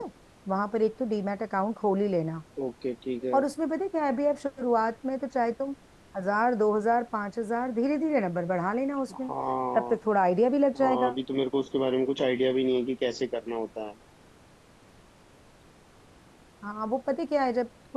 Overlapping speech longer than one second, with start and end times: none

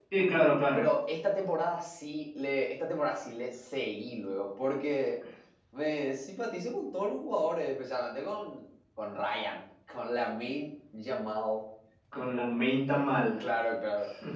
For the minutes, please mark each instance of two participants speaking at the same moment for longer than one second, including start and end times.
none

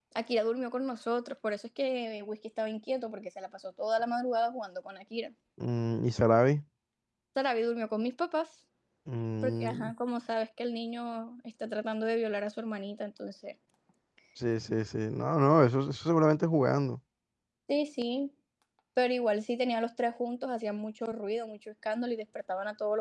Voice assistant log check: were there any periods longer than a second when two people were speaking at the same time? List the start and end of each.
none

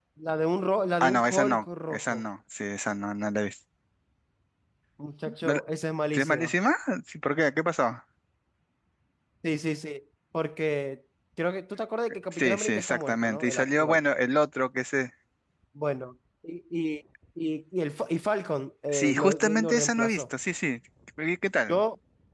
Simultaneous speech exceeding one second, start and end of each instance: 1.0-2.2, 12.3-14.0, 18.9-20.2

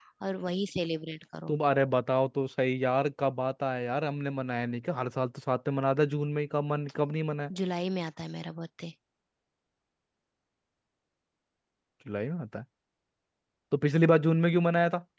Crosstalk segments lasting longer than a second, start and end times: none

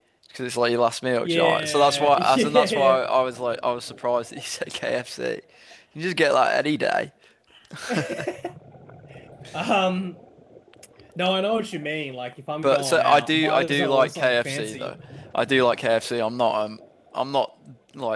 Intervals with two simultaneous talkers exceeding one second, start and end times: 1.2-3.0, 12.6-14.9

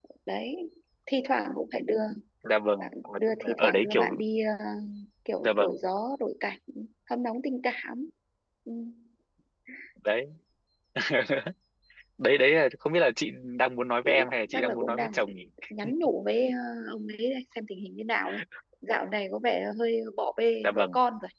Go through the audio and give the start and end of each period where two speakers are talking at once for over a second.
2.8-4.1, 14.0-15.3

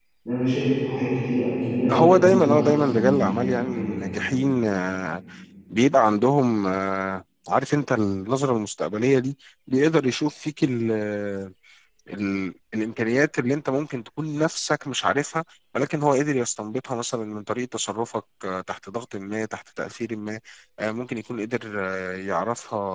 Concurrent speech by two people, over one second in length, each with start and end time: 1.9-4.2

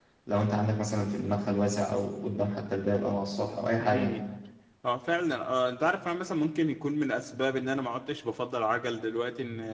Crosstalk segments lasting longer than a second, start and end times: none

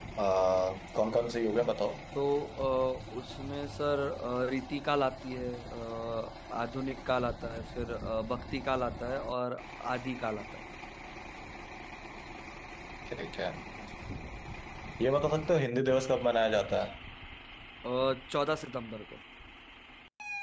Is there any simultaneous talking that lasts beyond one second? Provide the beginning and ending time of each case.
none

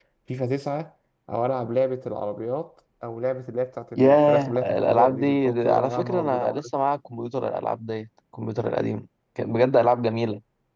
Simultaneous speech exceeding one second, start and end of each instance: 4.0-6.7

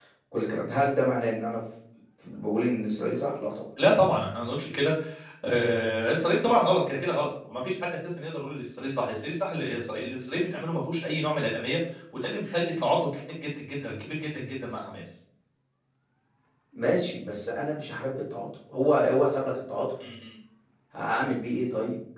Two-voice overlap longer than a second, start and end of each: none

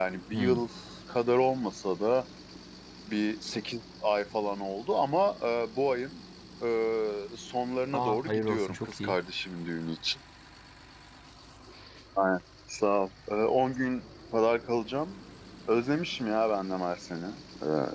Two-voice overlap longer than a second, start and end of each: 7.9-9.2

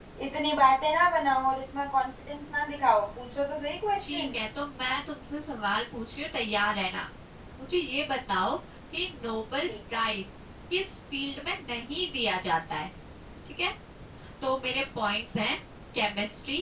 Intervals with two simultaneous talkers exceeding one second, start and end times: none

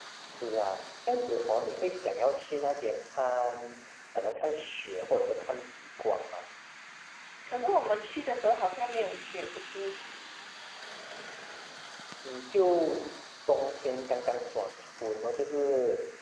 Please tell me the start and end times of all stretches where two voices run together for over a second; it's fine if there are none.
none

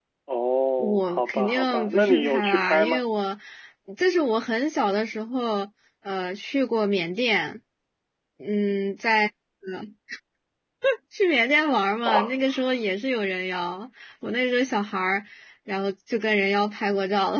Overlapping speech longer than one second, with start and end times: 0.8-3.0

